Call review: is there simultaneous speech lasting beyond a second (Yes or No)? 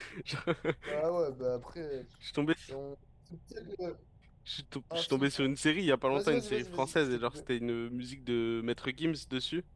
Yes